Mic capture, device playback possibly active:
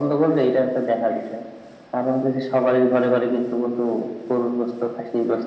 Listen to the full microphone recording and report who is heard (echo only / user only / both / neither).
echo only